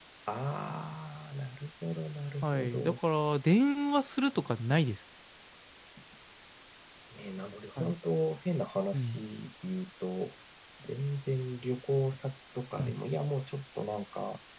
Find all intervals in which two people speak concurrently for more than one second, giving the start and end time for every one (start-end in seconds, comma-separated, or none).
none